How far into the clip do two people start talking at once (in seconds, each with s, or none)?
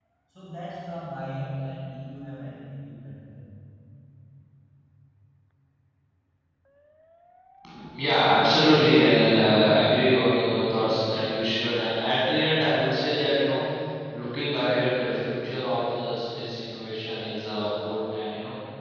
none